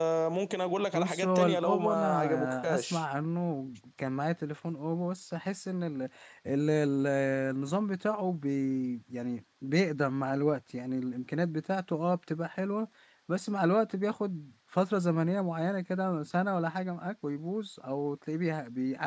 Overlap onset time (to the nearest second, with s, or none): 1 s